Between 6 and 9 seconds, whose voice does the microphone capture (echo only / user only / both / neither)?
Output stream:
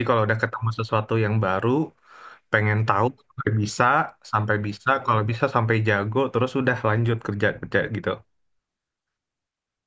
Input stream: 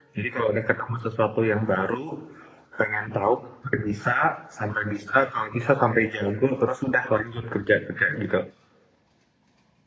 echo only